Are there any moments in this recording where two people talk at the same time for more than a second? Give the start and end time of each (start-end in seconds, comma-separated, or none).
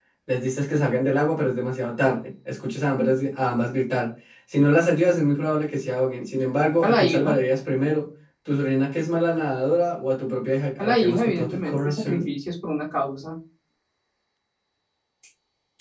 10.8-12.2